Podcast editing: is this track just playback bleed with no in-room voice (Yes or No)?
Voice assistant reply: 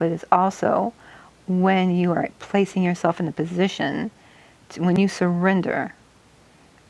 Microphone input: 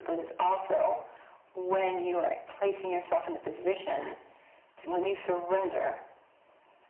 Yes